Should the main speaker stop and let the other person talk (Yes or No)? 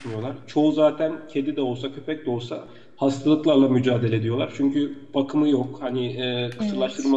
No